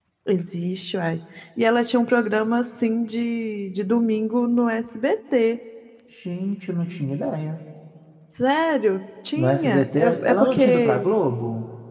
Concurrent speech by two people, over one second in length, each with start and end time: 9.4-11.1

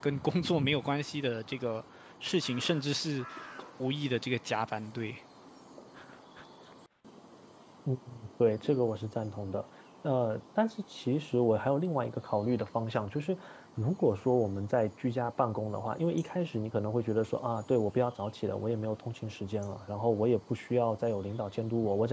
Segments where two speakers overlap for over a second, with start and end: none

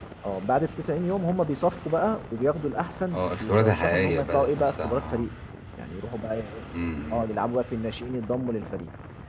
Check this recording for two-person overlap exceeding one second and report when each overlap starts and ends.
3.1-5.3

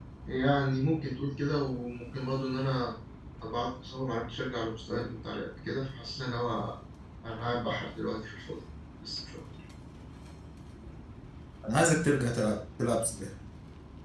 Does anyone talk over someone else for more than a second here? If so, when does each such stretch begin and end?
none

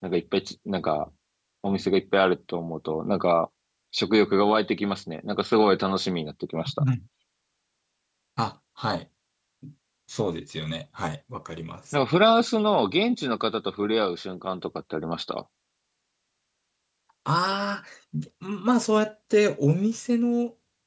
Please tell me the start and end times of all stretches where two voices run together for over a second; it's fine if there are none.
none

